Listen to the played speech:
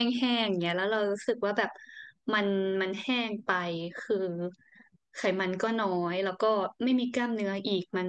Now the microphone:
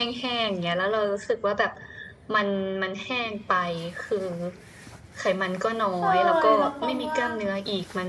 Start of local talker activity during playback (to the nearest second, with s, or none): 6 s